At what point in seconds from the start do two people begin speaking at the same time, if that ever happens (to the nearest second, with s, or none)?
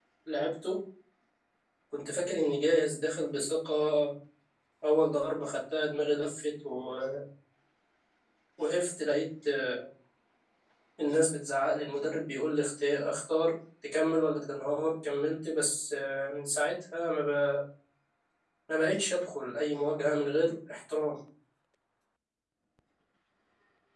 none